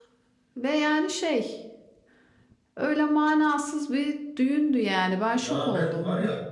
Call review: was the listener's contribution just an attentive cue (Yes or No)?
No